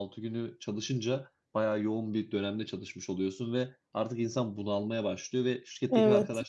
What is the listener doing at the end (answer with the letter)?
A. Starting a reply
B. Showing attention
B